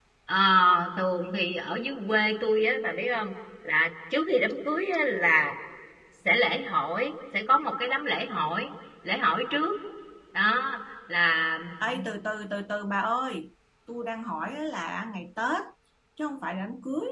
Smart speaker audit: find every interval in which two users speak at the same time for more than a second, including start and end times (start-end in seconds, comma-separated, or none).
none